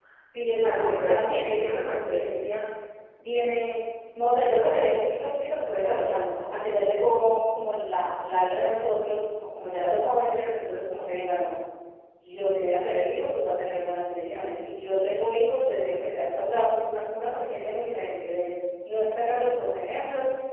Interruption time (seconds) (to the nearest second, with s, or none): 1 s